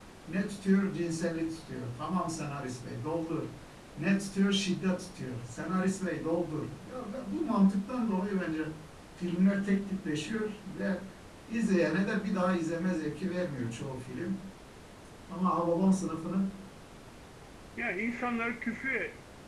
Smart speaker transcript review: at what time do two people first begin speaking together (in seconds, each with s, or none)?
none